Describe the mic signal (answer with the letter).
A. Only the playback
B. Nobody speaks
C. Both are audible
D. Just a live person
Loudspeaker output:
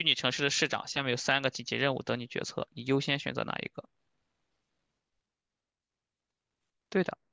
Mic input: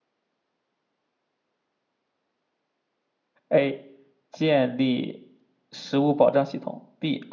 D